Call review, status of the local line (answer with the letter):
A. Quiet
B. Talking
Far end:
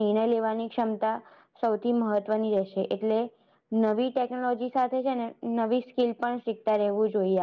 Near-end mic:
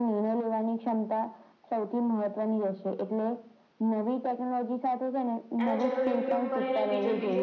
B